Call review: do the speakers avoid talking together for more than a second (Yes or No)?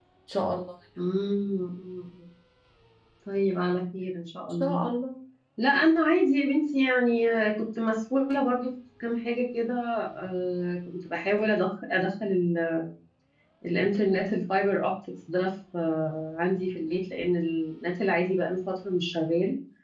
Yes